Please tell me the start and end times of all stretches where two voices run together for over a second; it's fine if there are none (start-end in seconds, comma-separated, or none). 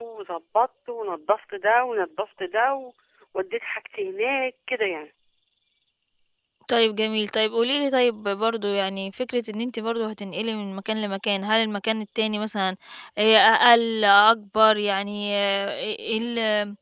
none